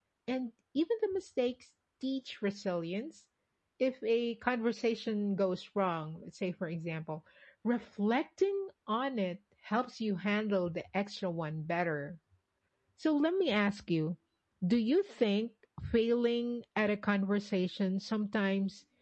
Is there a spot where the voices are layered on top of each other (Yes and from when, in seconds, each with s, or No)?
No